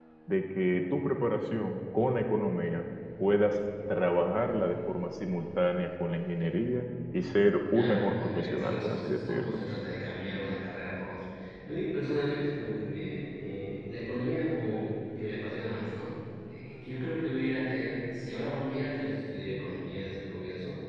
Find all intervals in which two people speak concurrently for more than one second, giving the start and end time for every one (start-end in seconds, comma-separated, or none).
7.7-9.6